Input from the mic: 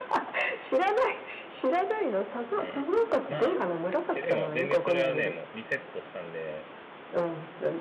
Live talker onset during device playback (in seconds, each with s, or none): 2.5 s